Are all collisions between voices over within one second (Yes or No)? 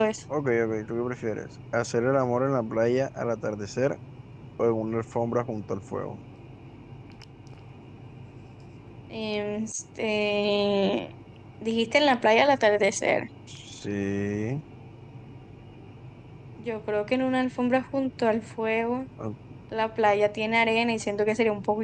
Yes